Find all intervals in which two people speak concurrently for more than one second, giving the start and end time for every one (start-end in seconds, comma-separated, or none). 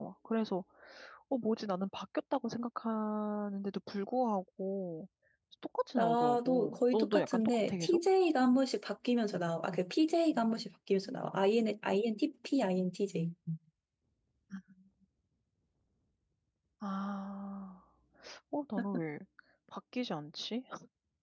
6.0-8.0